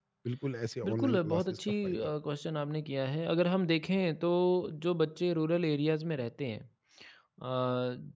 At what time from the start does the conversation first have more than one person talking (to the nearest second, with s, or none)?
1 s